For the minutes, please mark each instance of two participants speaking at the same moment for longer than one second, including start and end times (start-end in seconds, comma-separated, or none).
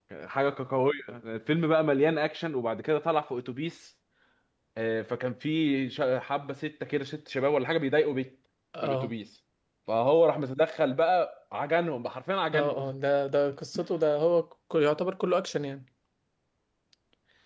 none